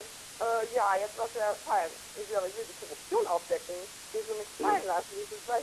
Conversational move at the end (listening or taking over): listening